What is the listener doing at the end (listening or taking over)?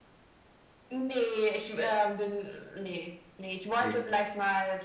listening